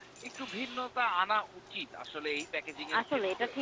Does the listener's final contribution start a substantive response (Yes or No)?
Yes